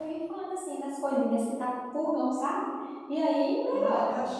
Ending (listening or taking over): taking over